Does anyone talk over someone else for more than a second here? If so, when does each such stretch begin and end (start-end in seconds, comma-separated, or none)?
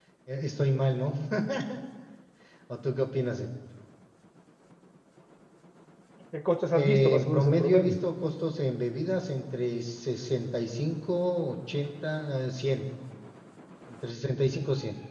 6.7-8.0